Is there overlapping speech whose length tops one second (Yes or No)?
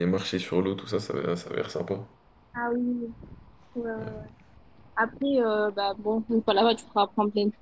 No